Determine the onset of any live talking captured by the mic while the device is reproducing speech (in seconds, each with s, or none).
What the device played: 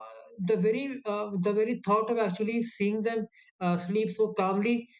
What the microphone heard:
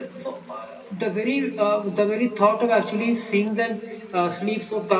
none